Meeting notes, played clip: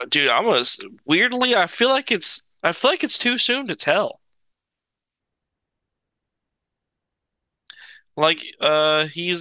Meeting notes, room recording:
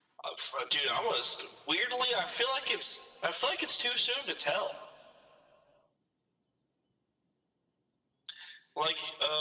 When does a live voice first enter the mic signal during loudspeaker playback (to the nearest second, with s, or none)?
none